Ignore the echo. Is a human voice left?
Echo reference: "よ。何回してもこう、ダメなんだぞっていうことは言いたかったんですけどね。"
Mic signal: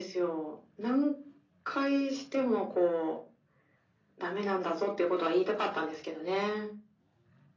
No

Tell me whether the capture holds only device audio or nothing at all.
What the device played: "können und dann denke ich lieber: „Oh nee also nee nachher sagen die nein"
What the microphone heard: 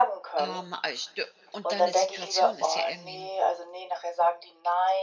No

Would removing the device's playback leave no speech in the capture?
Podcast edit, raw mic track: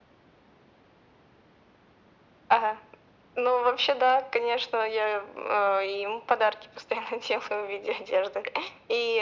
Yes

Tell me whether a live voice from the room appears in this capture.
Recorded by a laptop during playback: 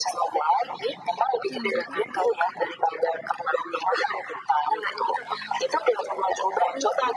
Yes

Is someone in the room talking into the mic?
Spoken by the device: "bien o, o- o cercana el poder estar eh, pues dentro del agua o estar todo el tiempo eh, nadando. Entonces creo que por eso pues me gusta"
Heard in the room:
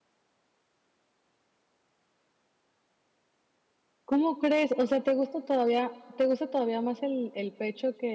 Yes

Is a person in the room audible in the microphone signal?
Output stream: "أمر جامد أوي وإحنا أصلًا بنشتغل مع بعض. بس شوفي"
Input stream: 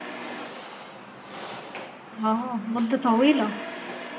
Yes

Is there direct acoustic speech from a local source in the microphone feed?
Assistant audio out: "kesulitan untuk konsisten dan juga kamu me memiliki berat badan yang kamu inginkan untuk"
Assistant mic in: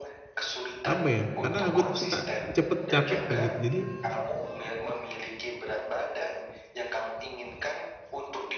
Yes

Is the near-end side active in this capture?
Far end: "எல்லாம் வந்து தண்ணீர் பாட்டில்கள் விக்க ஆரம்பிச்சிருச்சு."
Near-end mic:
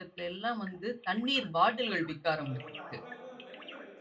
Yes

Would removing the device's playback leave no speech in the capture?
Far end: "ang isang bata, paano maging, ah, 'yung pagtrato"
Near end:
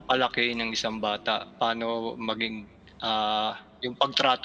Yes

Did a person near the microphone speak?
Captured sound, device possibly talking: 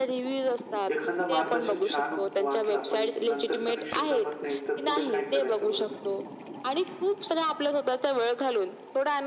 Yes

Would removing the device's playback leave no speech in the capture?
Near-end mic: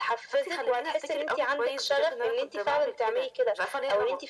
Yes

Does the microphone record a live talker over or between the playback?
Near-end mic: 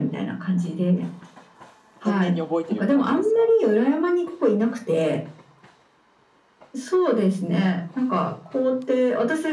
Yes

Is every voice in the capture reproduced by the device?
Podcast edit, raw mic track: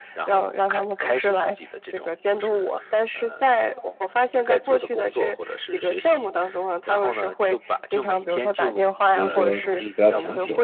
No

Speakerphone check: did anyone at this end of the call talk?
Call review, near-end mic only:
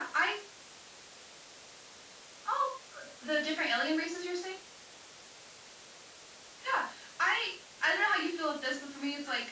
No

